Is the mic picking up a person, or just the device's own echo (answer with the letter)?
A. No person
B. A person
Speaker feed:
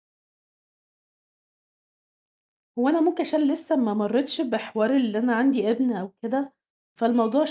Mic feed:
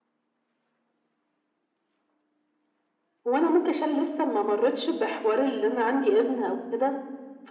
A